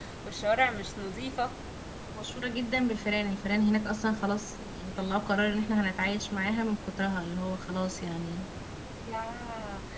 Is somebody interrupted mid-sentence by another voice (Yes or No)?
No